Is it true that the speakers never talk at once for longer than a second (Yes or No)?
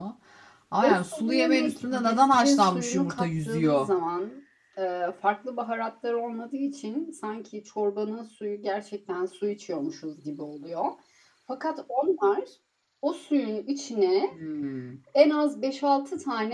No